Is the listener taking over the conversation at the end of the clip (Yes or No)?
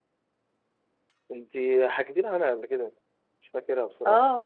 Yes